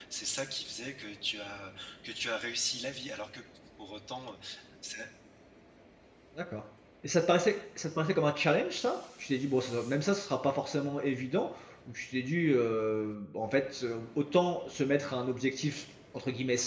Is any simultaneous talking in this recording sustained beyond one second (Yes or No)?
No